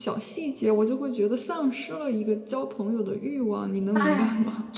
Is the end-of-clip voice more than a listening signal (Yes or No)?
Yes